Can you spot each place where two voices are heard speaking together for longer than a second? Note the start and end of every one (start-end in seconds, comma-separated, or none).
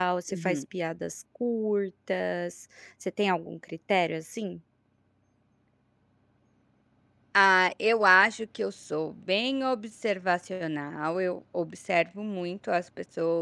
none